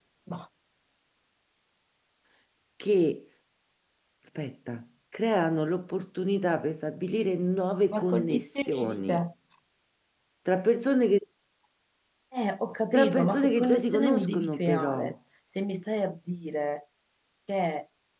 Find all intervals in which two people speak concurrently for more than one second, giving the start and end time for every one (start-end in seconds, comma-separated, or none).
7.9-9.2, 12.9-15.1